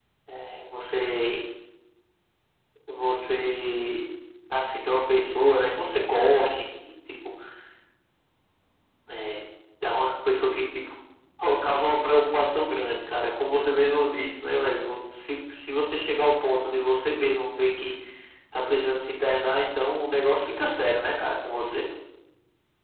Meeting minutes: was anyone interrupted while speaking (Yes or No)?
No